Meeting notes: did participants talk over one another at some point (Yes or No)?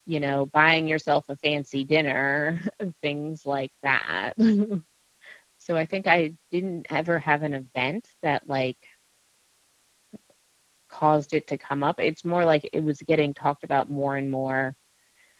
No